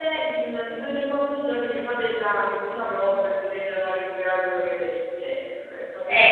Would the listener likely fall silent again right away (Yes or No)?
No